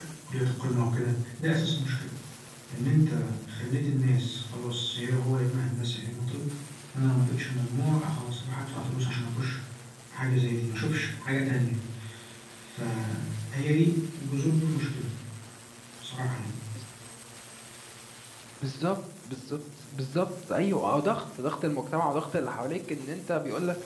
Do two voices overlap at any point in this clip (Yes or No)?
No